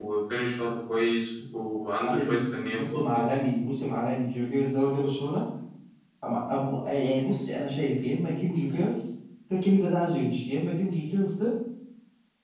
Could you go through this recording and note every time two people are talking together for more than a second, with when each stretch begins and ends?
2.0-3.2

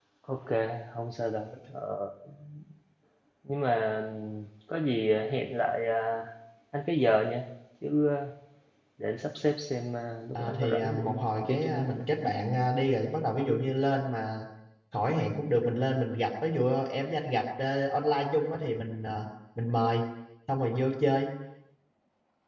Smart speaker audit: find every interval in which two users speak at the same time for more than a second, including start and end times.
10.3-12.0

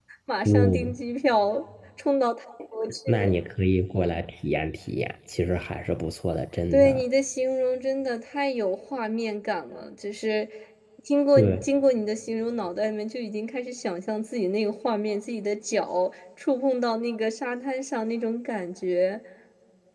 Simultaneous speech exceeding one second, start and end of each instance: none

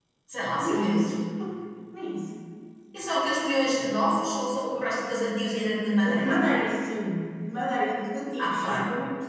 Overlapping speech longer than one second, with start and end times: none

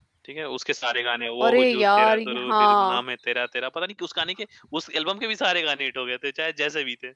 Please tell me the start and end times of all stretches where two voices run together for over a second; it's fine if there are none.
1.4-3.0

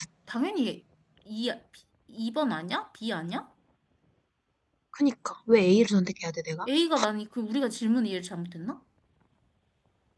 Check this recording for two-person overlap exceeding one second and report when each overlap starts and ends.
none

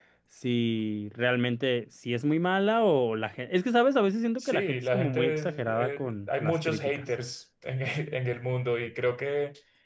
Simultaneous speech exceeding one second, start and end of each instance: 4.4-7.0

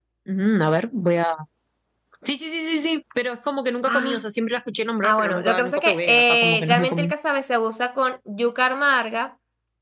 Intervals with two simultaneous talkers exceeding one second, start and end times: 5.0-7.1

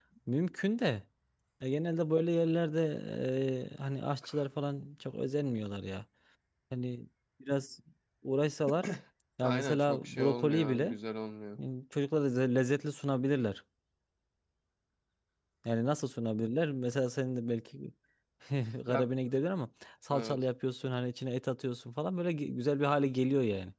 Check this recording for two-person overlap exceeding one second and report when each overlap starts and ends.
9.4-11.0

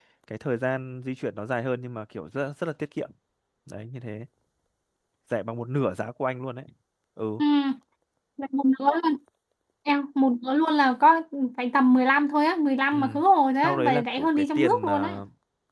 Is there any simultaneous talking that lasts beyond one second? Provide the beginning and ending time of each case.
13.6-15.1

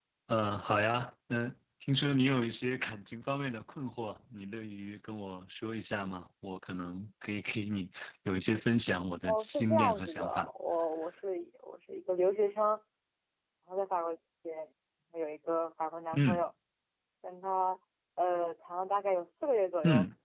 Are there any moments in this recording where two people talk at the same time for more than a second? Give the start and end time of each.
9.2-10.5

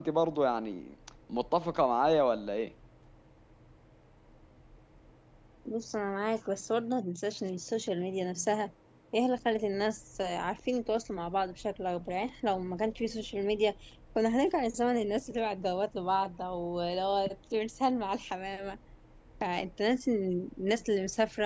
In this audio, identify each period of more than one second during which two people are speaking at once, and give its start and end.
none

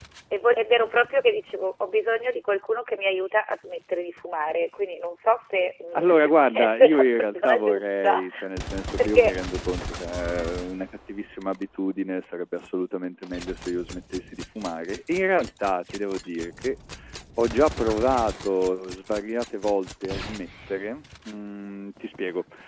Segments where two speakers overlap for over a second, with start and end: 6.0-8.2

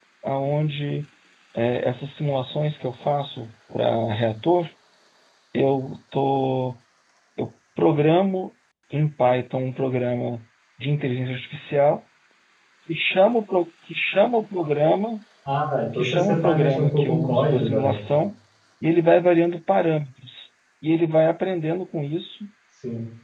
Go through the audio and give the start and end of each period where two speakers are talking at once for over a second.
15.9-18.0

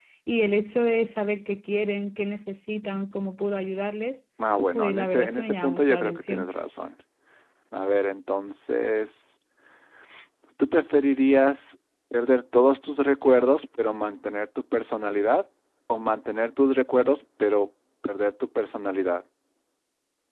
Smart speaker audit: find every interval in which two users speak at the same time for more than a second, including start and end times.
4.7-6.5

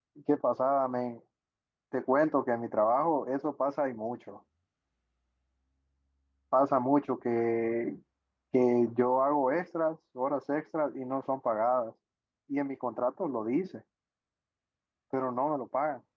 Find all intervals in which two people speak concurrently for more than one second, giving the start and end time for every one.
none

